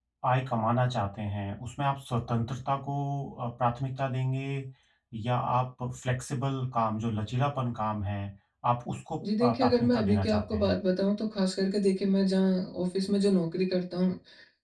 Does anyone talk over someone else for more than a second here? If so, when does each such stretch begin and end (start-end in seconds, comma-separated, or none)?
9.4-10.8